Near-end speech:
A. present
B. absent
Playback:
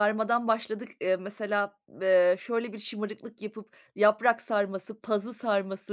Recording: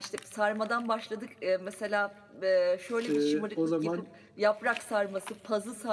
A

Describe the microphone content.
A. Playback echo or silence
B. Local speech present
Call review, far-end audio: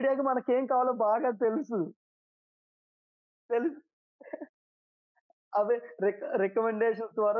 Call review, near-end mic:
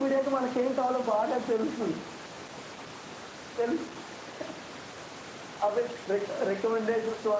A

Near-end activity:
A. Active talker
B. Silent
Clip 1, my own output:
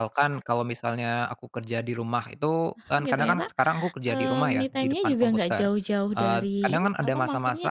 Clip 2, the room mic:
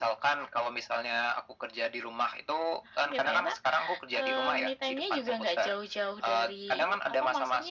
B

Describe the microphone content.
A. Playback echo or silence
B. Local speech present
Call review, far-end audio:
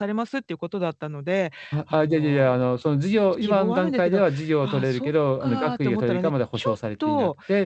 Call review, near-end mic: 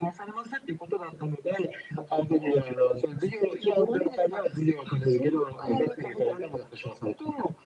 A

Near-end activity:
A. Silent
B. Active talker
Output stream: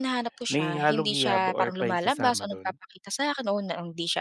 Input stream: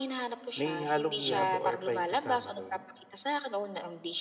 B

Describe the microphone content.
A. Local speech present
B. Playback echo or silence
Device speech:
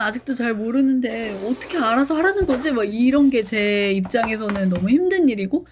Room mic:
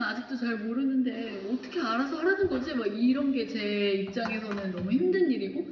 B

